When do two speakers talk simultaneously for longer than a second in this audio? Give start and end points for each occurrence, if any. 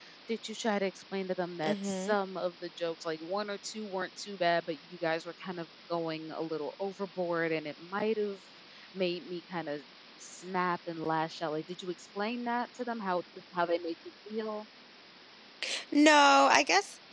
none

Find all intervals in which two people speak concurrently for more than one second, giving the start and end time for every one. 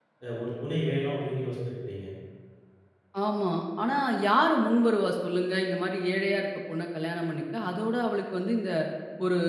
none

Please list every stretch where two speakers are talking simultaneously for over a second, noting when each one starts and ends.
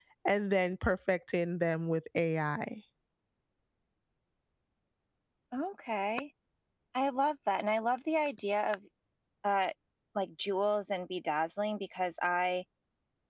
none

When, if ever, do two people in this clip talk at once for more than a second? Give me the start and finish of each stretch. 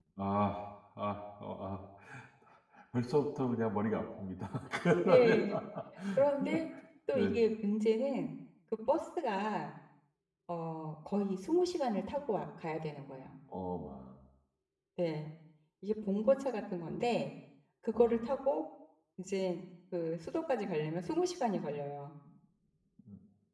none

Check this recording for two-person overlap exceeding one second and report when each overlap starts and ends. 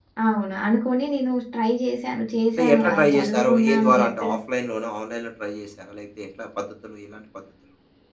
2.6-4.3

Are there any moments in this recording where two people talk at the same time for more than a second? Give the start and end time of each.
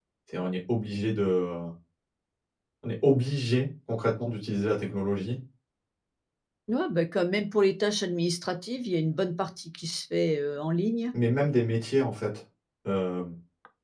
none

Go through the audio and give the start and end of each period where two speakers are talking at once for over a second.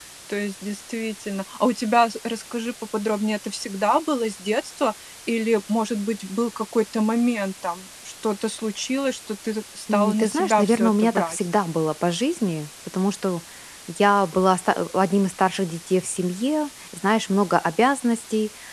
9.9-11.4

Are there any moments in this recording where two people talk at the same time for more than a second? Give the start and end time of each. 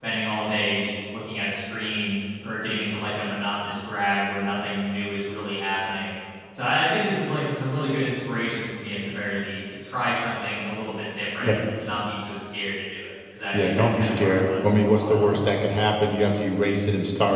13.5-15.4

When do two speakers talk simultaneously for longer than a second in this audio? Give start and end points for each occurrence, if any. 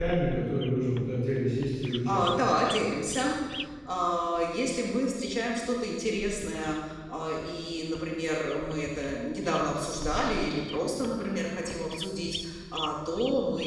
none

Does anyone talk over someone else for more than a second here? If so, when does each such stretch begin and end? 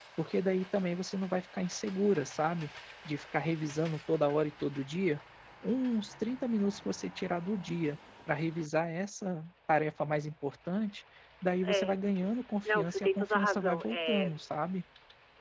12.6-14.3

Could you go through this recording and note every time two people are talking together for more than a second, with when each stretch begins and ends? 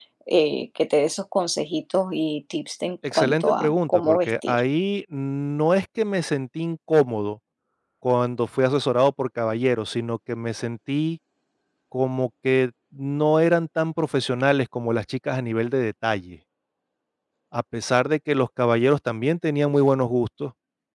3.1-4.6

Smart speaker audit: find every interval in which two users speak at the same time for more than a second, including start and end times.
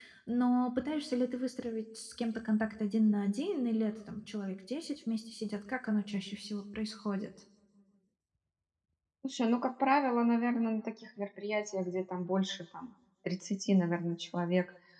none

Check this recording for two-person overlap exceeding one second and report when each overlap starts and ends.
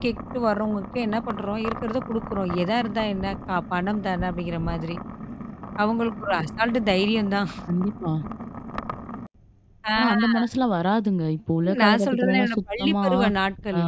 11.6-13.1

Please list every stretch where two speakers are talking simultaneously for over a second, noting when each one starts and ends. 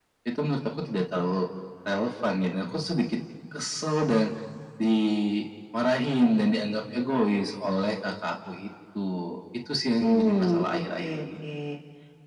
10.0-11.2

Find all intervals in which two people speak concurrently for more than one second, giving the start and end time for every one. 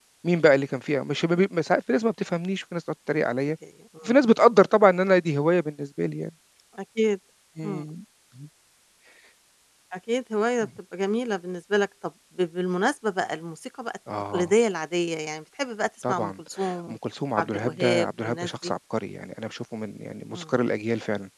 17.4-18.7

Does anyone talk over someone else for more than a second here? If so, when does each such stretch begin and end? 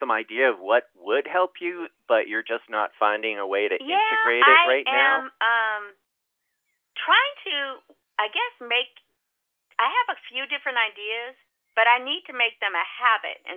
3.9-5.2

